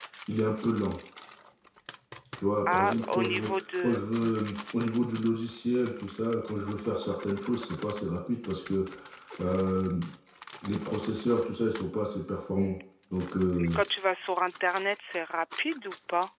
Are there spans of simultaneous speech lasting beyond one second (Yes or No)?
Yes